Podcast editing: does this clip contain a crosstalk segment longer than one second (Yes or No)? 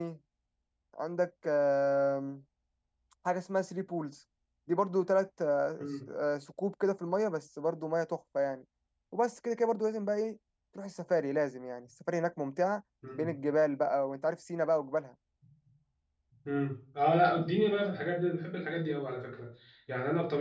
No